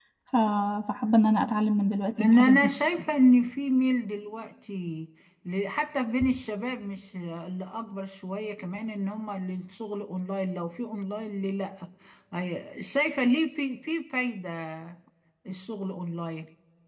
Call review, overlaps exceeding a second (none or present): none